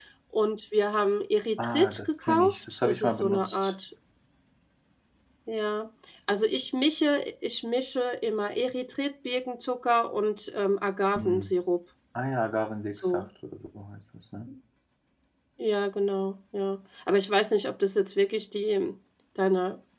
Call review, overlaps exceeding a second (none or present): present